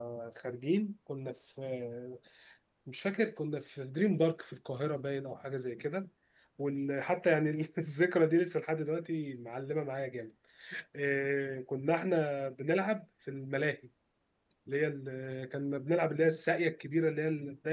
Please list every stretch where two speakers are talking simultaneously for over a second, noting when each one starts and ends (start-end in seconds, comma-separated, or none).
none